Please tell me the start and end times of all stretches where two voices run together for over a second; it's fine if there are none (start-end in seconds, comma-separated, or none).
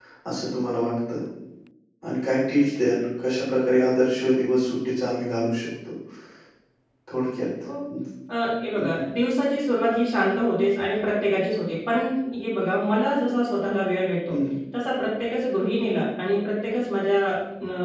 none